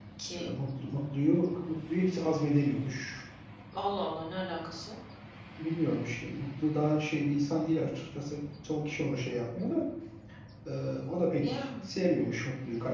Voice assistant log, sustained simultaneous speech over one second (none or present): none